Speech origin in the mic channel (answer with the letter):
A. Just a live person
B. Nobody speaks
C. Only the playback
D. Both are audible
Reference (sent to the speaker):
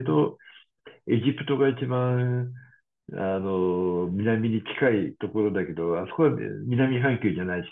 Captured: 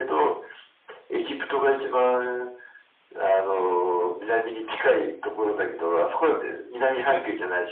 C